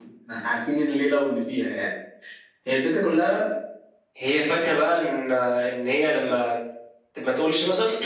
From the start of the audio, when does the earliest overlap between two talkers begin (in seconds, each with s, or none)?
none